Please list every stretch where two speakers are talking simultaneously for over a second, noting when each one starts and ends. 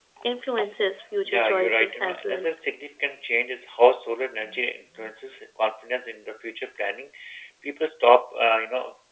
1.3-2.5

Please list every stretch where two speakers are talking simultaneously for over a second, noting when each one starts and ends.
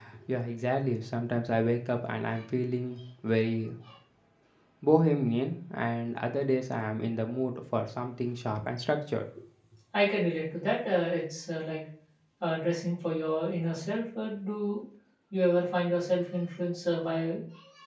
none

